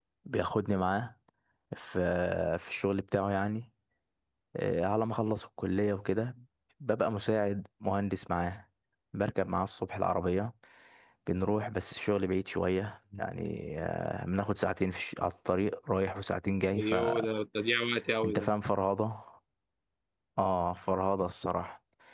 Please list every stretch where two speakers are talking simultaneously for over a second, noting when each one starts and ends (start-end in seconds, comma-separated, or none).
none